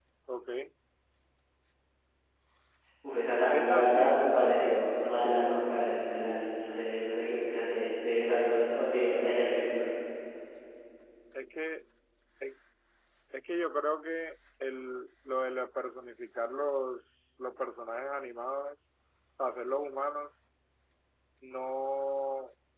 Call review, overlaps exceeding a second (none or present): present